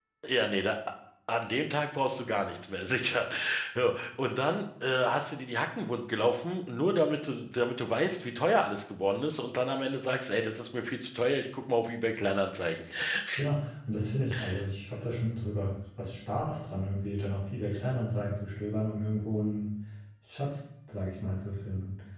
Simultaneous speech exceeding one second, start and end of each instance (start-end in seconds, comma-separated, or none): none